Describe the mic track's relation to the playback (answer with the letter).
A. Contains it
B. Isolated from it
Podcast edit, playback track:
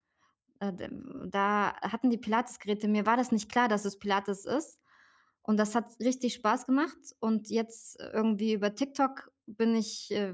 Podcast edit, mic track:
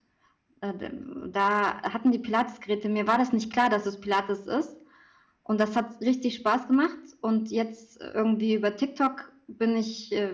A